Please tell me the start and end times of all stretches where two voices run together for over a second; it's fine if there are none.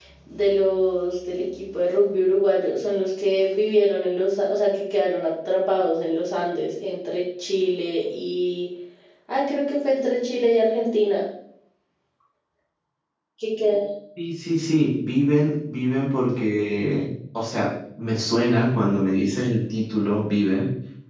none

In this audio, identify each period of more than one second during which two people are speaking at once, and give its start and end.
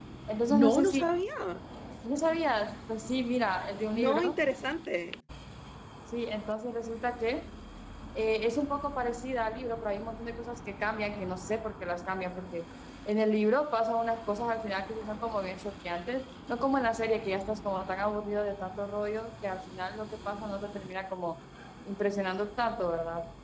none

